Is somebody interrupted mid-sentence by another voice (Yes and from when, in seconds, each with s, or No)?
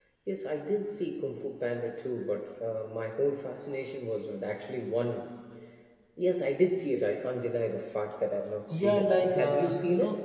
Yes, from 8.7 s